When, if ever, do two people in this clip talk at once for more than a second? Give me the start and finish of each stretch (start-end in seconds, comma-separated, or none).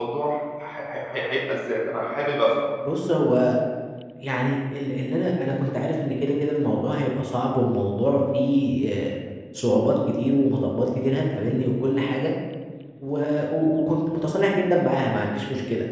none